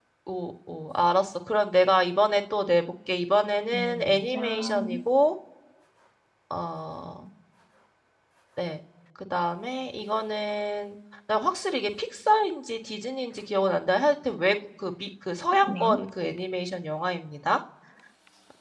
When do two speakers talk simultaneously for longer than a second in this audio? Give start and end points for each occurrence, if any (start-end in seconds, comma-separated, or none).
3.7-5.0